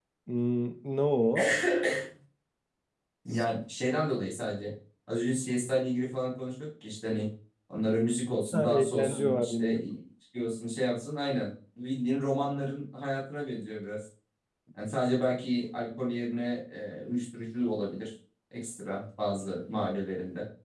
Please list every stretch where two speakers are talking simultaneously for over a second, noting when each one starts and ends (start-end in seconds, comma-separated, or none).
8.5-9.8